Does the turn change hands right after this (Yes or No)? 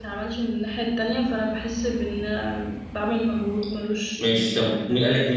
Yes